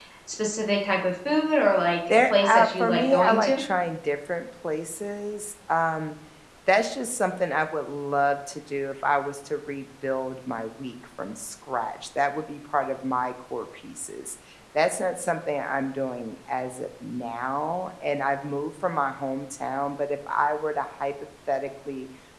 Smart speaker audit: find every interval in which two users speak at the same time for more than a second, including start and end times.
2.1-3.6

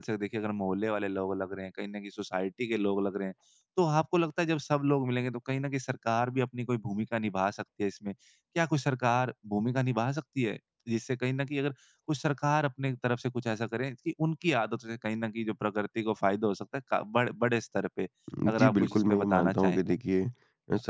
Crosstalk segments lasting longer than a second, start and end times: 18.6-19.8

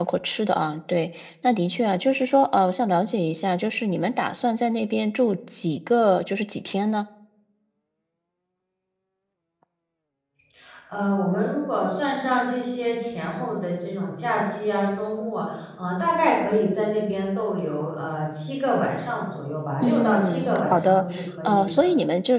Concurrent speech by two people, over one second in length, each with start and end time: 19.8-21.0

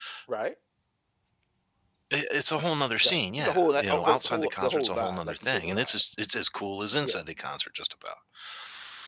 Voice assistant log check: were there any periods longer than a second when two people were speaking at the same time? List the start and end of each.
3.0-6.0

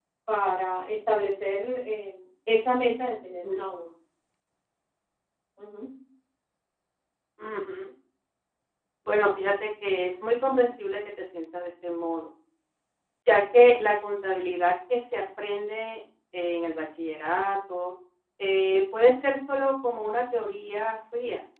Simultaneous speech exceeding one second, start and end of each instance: none

